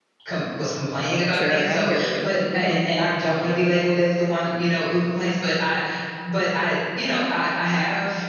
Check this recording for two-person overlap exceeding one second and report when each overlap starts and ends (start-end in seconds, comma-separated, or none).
1.3-2.8